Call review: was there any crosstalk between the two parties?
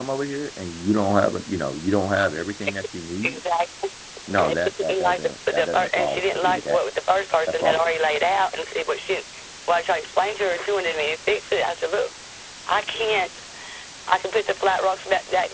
Yes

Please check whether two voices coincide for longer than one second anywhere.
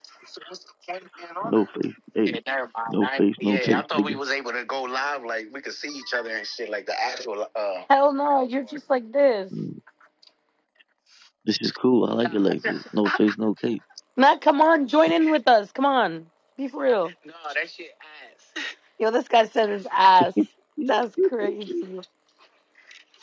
Yes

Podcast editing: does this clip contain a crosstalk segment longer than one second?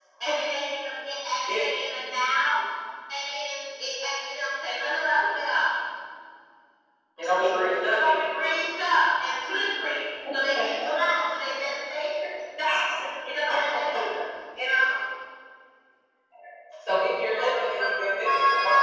Yes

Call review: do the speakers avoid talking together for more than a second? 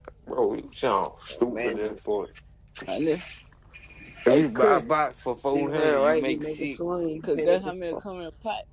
No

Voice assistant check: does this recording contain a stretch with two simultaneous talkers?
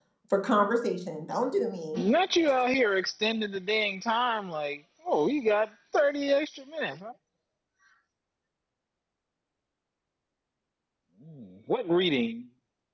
No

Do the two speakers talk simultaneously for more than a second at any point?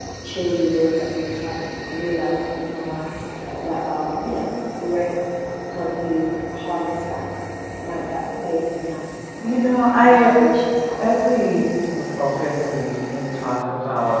No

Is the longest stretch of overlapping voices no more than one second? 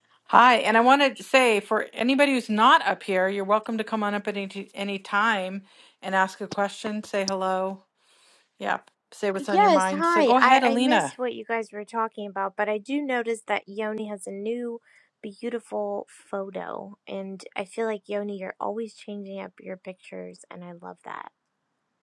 No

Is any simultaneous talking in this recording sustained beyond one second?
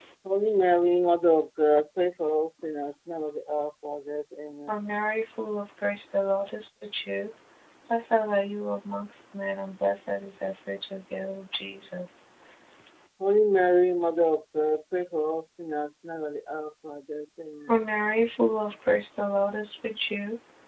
No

